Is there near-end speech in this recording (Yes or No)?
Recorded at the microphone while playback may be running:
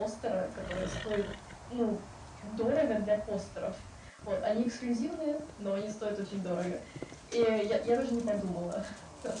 No